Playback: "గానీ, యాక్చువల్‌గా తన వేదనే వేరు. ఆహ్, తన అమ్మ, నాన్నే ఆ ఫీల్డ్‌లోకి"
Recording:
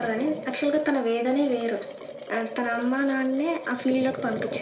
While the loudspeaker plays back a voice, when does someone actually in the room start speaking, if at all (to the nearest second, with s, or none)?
none